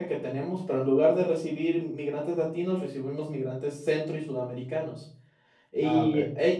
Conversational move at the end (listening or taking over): listening